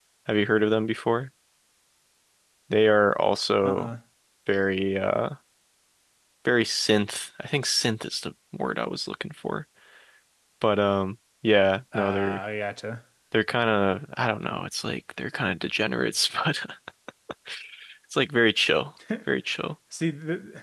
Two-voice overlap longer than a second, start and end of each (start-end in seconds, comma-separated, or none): none